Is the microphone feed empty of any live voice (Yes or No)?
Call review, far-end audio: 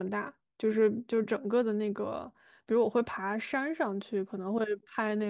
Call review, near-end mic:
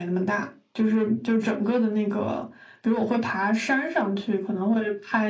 Yes